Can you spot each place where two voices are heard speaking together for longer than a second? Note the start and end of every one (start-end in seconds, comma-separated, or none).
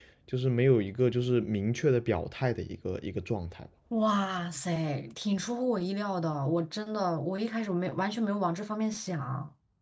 none